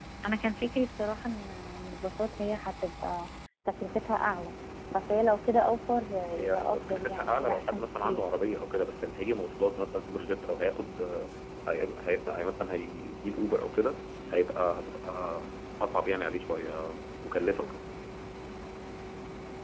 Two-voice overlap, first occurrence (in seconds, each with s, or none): 6.2 s